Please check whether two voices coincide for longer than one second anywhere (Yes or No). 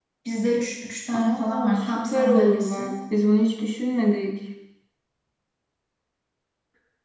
Yes